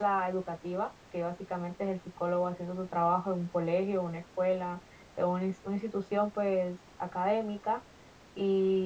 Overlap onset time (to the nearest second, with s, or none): none